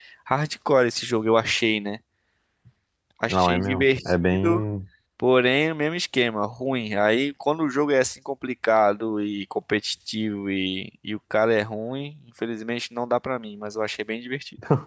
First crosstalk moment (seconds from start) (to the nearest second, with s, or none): 3 s